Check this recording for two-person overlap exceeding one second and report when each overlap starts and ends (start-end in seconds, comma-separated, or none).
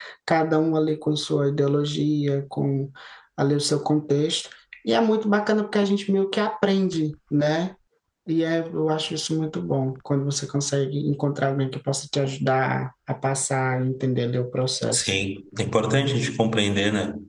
none